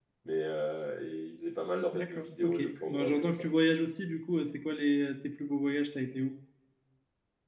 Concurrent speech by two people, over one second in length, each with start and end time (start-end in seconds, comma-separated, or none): 1.9-3.5